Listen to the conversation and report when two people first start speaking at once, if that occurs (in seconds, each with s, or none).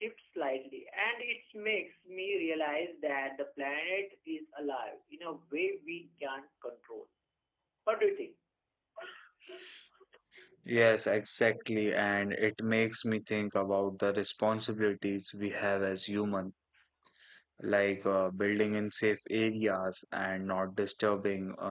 none